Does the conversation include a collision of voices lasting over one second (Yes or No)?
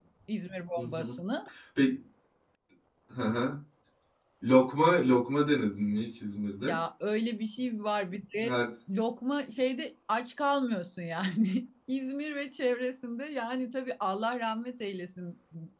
No